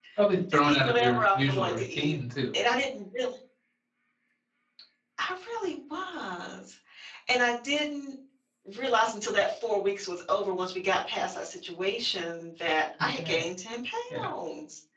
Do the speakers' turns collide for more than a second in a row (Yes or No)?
Yes